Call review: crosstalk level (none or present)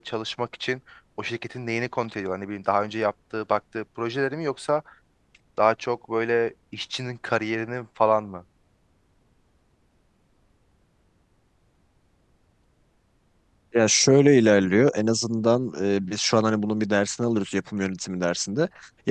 none